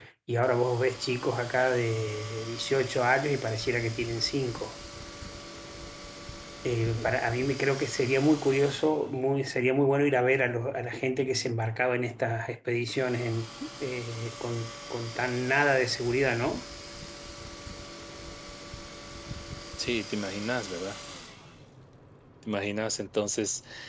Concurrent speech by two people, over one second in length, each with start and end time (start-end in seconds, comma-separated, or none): none